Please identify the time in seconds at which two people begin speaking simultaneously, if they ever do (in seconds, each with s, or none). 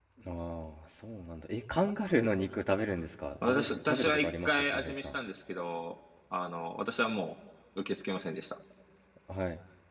3.4 s